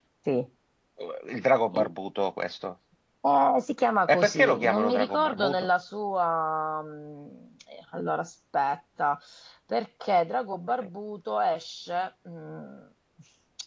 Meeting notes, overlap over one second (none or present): present